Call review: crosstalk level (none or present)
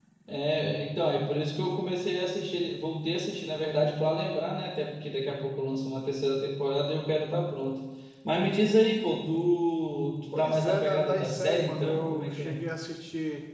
present